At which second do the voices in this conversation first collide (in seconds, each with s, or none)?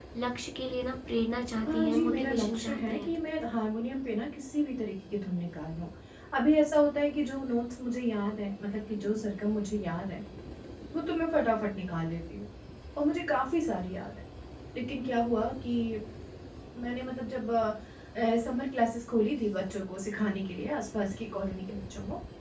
1.6 s